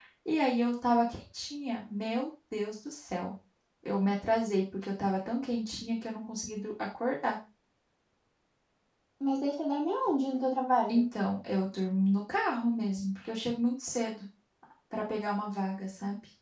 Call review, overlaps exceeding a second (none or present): none